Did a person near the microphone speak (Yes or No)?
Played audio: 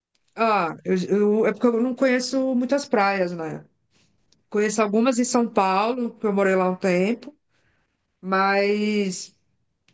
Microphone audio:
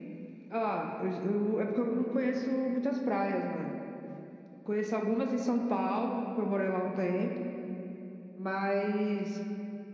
No